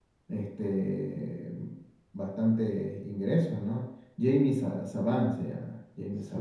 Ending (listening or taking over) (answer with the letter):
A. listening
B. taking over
B